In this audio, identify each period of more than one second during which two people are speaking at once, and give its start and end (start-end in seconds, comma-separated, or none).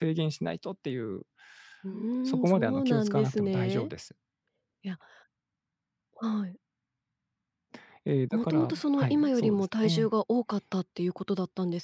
2.2-3.9, 8.3-10.1